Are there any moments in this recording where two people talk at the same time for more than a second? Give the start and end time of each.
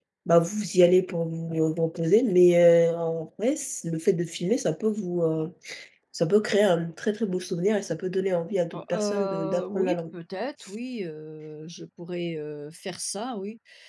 8.7-10.0

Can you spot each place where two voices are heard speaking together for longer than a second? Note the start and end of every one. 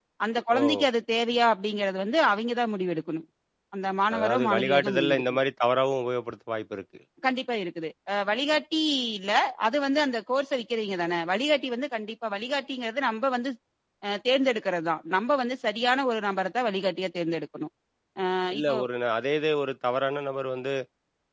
4.2-5.4

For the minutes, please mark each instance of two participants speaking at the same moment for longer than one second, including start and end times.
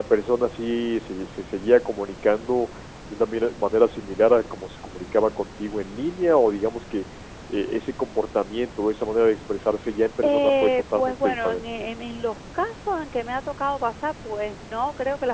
10.2-11.6

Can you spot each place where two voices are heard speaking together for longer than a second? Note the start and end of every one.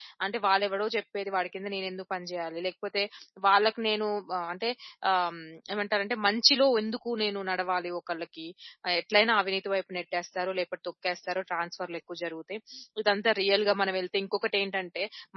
none

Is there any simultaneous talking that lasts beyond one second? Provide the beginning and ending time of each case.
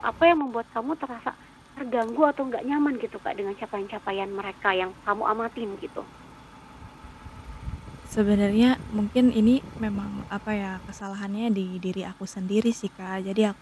none

